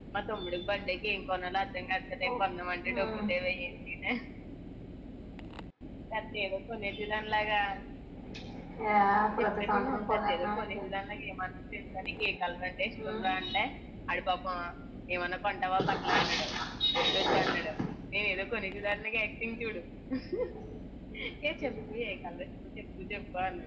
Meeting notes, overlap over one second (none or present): present